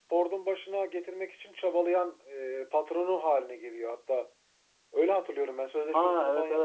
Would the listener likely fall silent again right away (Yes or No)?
No